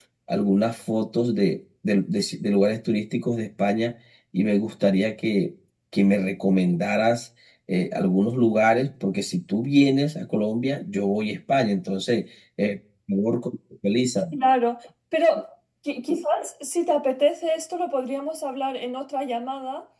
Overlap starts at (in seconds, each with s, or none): none